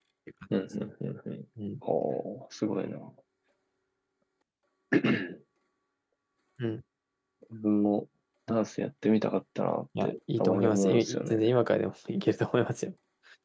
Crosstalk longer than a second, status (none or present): present